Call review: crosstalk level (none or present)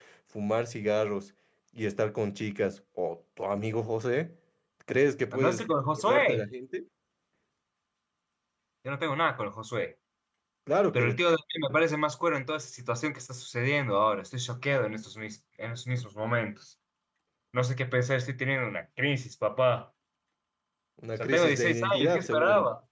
present